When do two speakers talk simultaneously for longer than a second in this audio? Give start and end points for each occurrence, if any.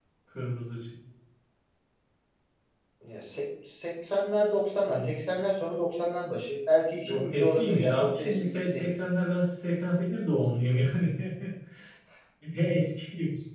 7.0-8.9

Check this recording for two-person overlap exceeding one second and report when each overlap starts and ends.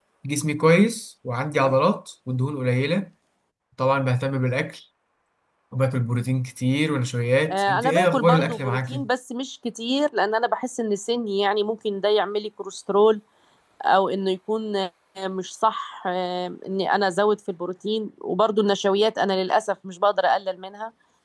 7.5-9.0

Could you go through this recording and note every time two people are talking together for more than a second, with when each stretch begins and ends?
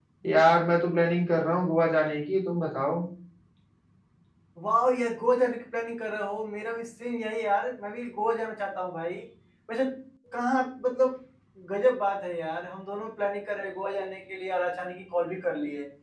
none

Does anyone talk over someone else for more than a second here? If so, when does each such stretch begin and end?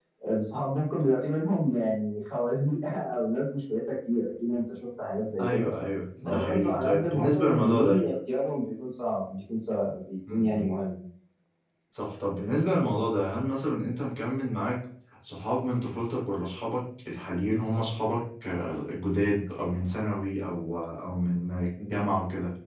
6.2-8.0

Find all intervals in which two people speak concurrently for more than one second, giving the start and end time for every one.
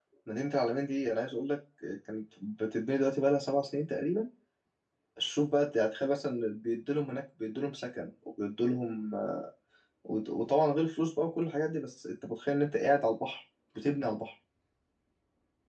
none

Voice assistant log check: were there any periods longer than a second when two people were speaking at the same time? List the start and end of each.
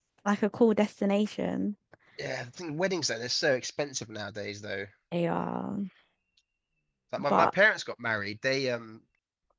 none

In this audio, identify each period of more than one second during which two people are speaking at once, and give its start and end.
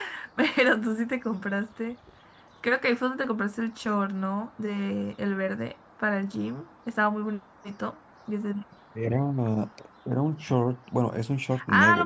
none

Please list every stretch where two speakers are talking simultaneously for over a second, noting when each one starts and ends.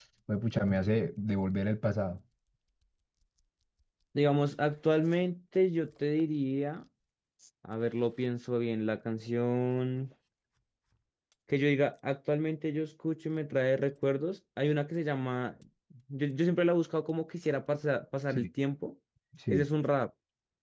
none

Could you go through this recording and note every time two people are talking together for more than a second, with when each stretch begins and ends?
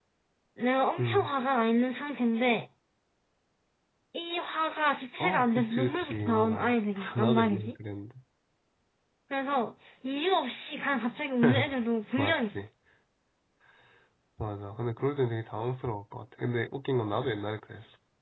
5.2-7.8

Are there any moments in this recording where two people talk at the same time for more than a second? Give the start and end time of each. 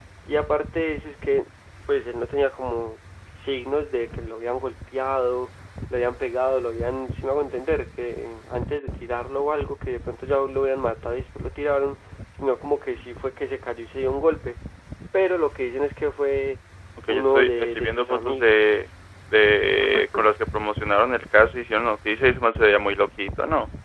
17.1-18.7

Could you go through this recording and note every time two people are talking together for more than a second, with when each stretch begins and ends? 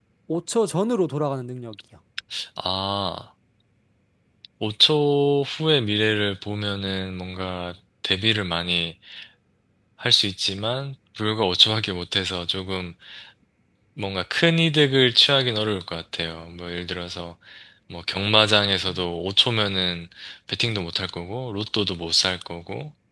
none

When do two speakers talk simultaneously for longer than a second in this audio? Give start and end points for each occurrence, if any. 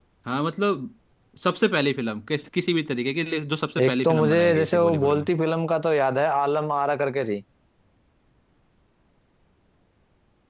3.8-5.3

